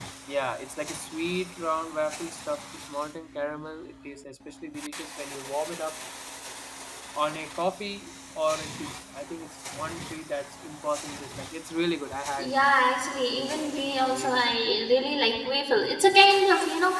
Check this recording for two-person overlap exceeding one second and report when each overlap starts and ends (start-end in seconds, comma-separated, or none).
none